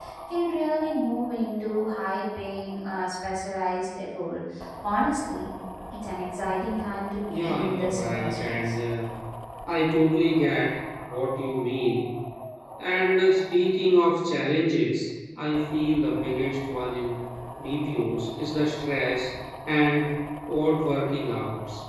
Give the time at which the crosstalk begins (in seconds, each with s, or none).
7.3 s